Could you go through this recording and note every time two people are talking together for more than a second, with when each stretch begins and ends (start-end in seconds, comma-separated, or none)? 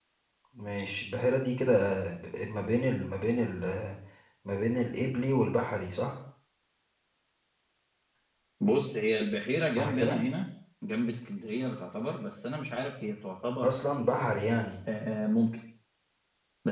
none